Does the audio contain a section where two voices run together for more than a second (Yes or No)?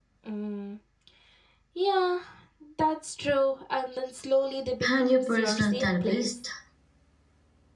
Yes